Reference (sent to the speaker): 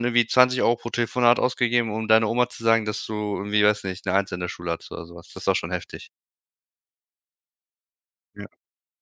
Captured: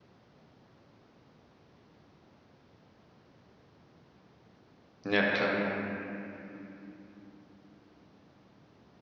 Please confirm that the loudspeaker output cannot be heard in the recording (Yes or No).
Yes